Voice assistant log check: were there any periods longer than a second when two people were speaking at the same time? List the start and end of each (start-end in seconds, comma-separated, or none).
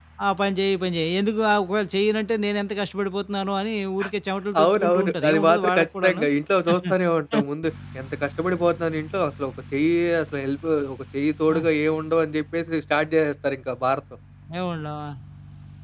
4.6-6.2